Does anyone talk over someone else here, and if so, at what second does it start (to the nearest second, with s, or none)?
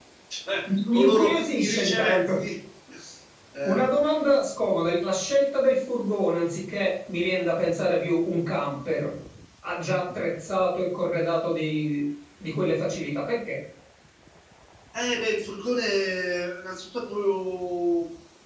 1 s